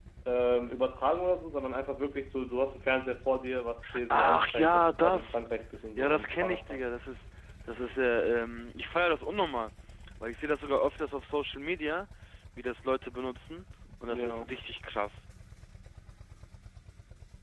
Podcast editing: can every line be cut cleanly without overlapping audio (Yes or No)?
No